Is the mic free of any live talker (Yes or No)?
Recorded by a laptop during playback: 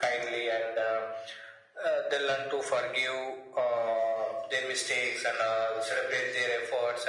Yes